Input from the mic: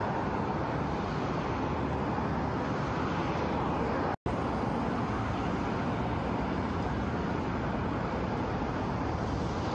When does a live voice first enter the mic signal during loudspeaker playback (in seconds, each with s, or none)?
none